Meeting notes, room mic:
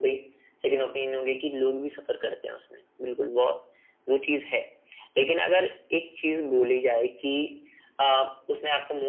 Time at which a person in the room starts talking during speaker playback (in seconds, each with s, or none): none